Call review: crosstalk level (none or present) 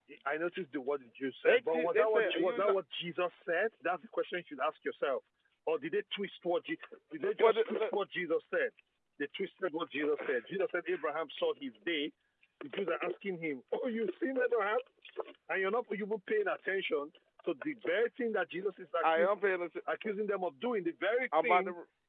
present